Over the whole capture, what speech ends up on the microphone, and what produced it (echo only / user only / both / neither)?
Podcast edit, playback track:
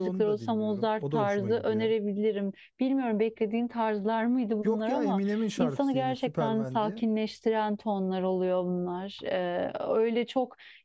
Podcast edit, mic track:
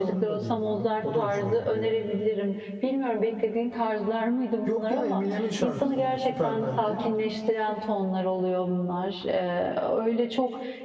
echo only